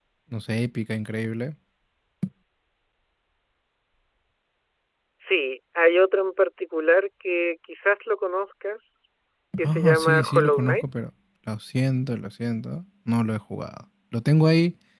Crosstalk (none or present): present